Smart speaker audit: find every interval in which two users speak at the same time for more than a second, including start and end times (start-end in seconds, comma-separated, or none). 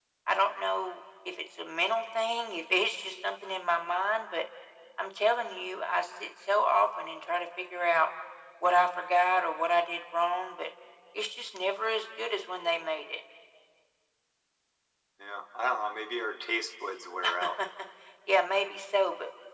none